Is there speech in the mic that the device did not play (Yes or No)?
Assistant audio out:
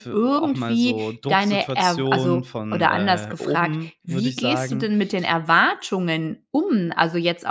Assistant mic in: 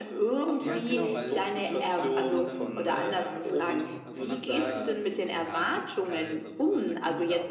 Yes